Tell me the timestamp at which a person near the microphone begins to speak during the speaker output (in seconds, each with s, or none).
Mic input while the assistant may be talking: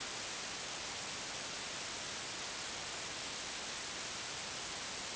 none